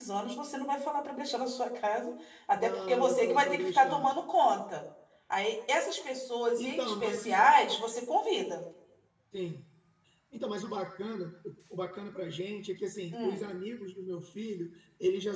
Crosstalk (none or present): present